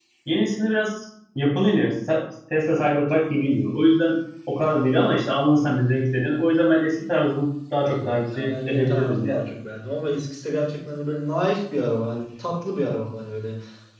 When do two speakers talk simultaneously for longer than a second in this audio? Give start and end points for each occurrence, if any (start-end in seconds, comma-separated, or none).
7.8-9.3